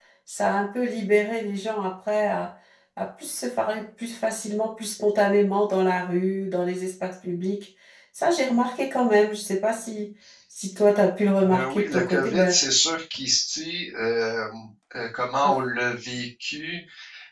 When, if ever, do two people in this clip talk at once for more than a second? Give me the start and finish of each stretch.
11.4-12.6

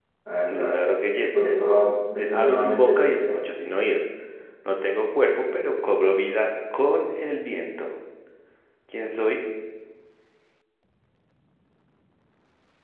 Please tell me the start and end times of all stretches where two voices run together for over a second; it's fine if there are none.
2.2-3.4

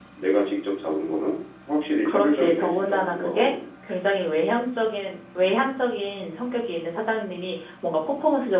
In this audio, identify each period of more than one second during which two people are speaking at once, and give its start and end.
2.0-3.5

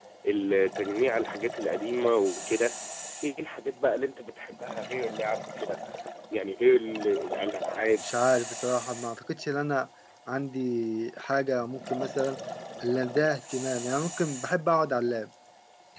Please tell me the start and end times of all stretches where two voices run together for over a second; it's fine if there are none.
none

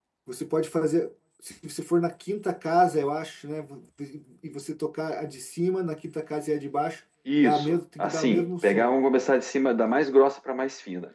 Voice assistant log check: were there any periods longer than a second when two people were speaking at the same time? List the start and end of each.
7.4-8.9

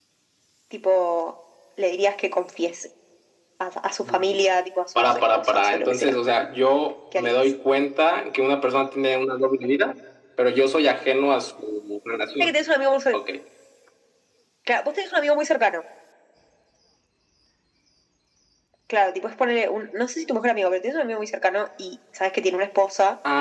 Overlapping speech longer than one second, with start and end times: 5.0-6.2

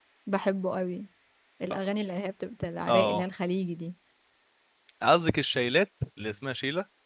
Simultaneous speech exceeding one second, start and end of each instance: none

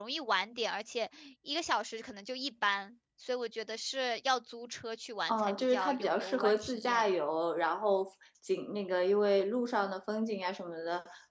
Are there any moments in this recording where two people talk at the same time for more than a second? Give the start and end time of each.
5.3-7.0

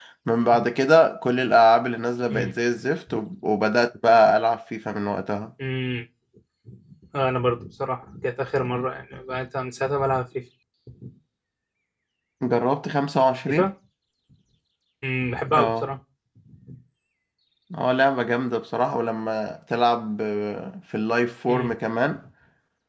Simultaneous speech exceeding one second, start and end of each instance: none

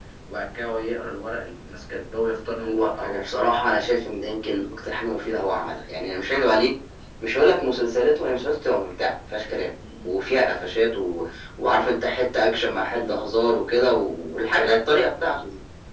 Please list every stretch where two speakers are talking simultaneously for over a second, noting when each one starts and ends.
2.6-3.9

